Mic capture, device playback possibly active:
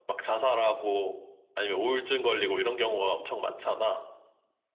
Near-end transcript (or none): none